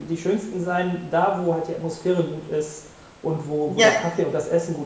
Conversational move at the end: listening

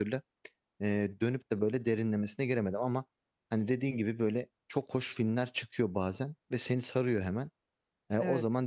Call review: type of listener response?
listening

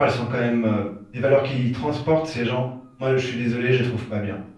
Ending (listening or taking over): listening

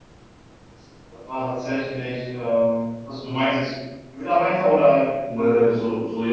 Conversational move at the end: taking over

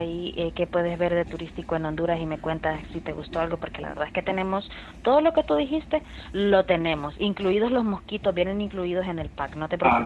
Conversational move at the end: taking over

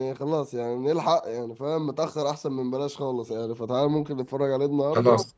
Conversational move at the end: listening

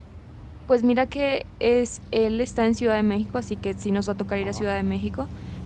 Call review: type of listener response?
listening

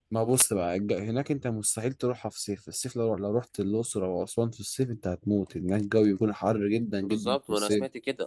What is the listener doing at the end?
taking over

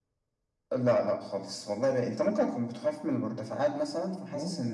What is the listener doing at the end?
taking over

